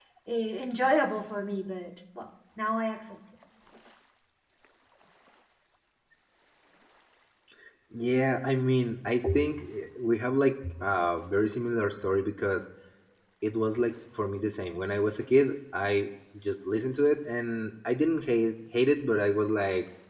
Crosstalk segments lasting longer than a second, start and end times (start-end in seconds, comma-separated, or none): none